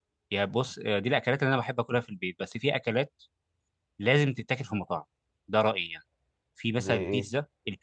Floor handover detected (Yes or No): No